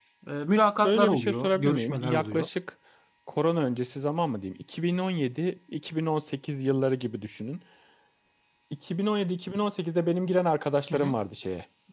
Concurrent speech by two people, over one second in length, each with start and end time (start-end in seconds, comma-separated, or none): 0.8-2.5